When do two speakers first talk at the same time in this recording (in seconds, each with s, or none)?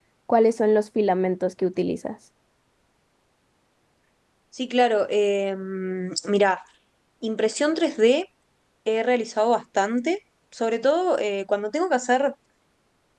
none